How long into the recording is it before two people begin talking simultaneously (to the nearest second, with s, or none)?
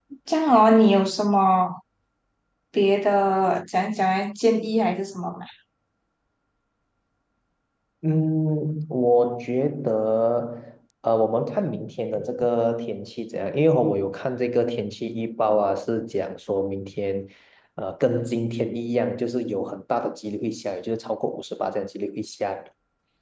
none